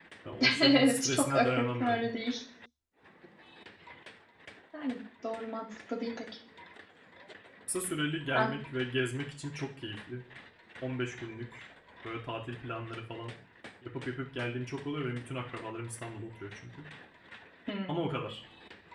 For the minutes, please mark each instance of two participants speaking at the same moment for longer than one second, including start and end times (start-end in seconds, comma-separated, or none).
0.6-2.1